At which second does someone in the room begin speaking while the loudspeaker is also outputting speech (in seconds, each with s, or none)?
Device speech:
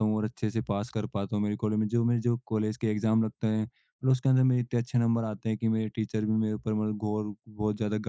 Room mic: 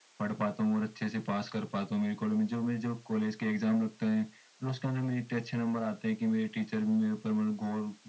none